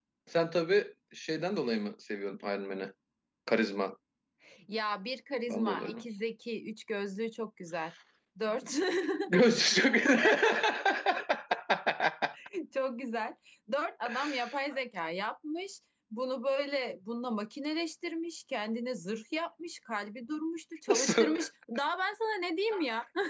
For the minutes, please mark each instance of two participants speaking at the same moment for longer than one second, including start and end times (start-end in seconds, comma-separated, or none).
none